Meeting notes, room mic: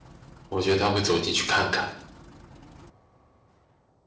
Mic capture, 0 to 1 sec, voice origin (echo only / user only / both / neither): user only